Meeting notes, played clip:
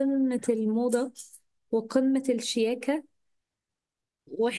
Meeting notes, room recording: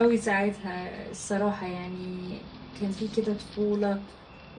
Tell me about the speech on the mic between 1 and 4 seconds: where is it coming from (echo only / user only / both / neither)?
user only